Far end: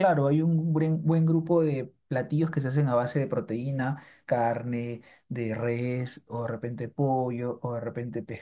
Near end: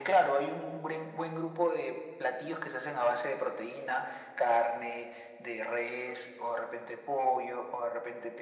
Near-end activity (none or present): none